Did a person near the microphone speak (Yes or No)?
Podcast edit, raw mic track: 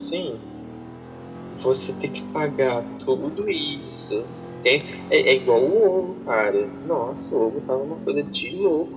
No